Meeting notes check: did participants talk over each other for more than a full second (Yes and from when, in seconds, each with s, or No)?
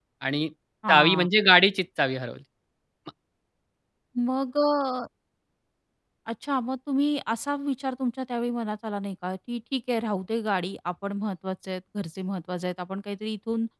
No